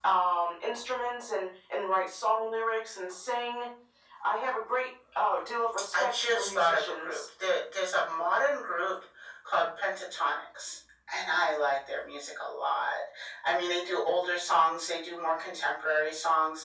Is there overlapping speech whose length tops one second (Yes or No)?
Yes